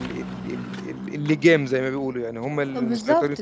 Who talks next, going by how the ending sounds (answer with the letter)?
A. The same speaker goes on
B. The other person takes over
B